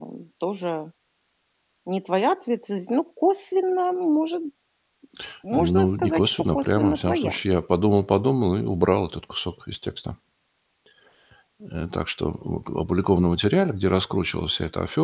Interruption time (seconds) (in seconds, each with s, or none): 5.5 s